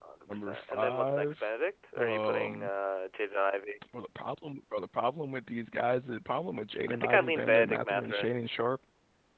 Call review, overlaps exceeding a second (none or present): present